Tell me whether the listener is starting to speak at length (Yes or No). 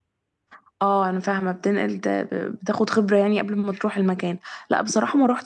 No